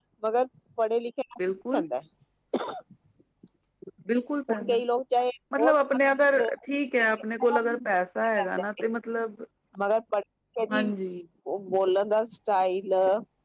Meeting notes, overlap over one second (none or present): none